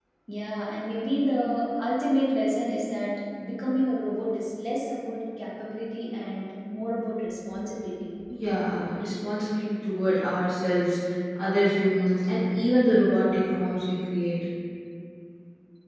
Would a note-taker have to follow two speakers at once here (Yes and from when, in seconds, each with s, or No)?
No